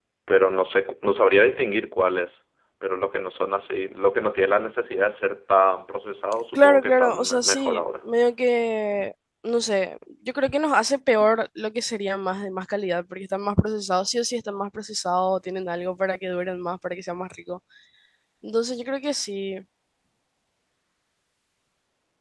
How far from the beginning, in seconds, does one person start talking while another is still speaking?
6.5 s

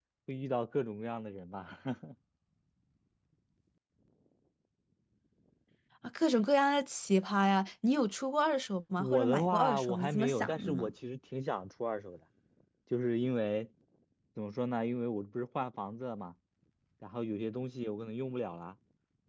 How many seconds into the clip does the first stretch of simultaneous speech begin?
9.0 s

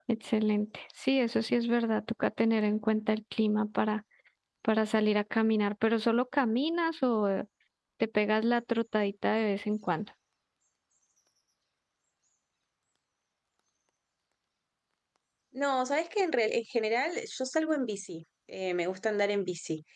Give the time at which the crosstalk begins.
none

